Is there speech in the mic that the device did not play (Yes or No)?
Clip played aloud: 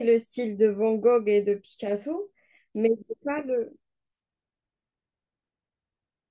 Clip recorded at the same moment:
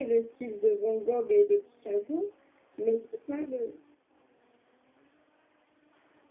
No